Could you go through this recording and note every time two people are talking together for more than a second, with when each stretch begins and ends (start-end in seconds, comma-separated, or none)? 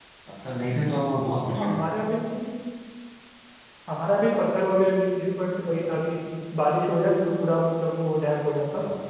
none